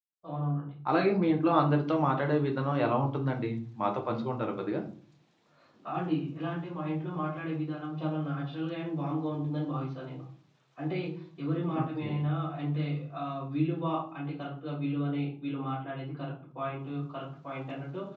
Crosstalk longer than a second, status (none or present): none